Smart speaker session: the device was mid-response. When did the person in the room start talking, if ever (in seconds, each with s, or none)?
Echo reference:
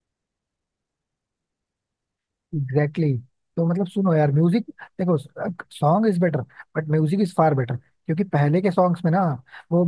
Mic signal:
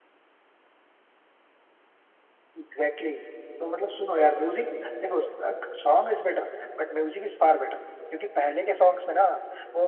none